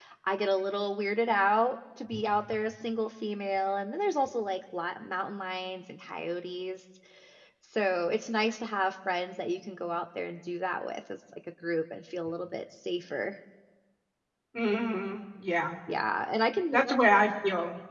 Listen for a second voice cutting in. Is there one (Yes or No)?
No